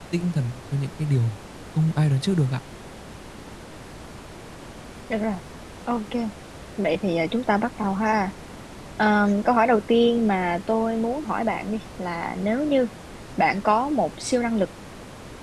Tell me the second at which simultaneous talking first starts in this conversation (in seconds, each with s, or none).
none